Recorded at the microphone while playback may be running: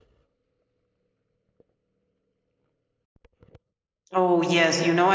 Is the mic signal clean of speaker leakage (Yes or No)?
Yes